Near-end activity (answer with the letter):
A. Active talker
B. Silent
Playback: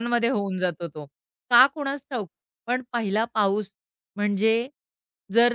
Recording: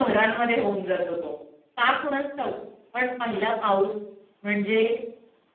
B